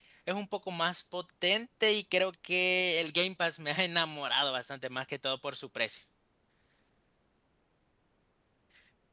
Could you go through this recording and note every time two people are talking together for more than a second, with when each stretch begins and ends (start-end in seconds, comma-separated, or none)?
none